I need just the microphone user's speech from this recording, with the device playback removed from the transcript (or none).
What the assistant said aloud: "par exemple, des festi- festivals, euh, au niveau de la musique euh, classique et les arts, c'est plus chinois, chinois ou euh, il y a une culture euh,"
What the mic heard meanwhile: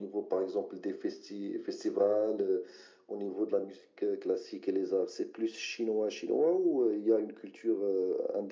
none